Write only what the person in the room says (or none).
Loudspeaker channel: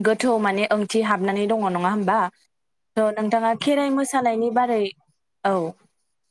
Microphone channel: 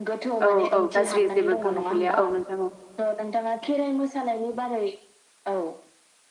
औ औ गाज्रि जेबो गोहोम खोलैया औ नोंथां औ